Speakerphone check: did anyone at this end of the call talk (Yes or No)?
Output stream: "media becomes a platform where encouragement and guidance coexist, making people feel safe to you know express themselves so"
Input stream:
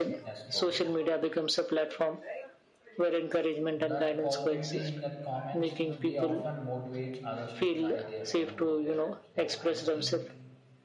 Yes